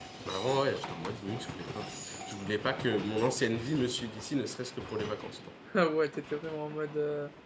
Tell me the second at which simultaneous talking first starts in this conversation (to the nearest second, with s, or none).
none